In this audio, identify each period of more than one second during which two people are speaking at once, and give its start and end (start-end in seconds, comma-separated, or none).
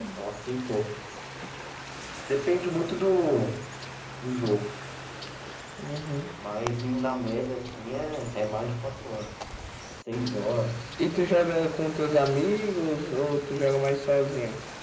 none